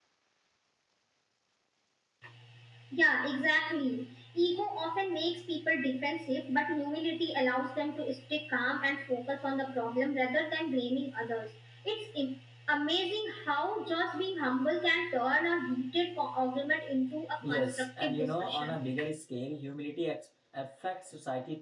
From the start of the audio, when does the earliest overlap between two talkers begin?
17.4 s

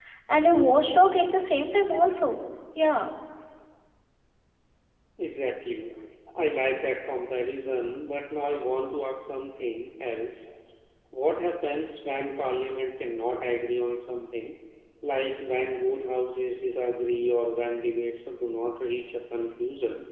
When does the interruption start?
none

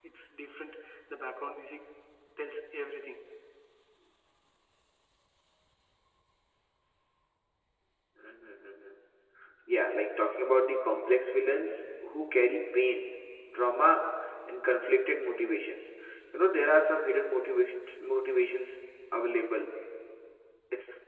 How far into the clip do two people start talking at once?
none

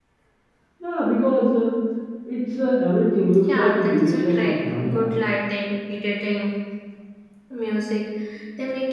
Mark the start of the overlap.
3.5 s

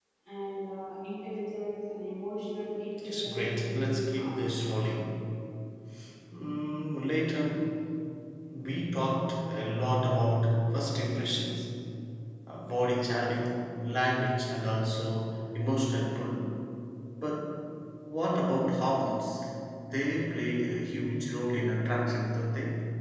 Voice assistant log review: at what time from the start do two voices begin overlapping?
3.0 s

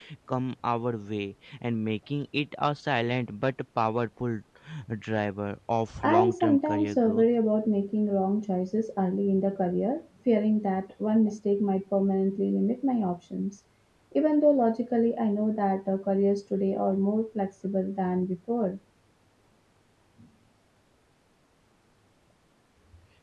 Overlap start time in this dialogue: 6.0 s

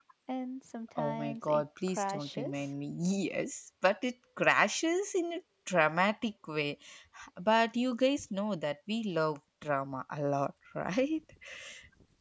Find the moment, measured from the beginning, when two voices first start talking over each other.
1.0 s

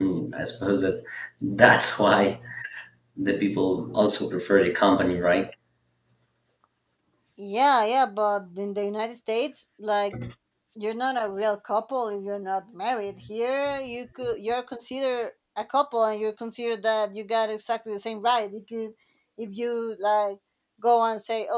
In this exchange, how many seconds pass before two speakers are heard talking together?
none

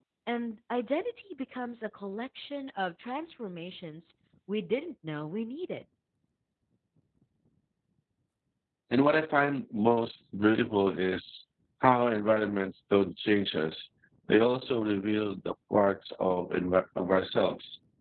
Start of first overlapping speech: none

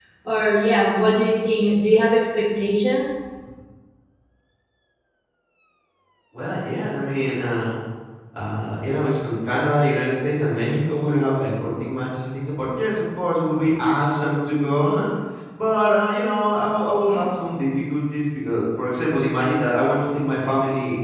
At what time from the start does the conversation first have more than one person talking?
none

